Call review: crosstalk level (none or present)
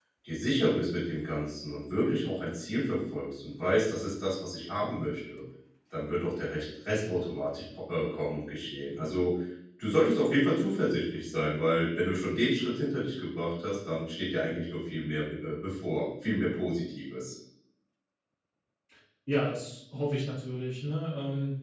none